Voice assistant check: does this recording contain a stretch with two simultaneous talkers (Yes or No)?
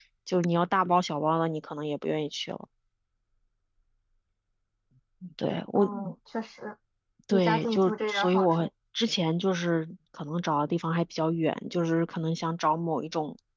Yes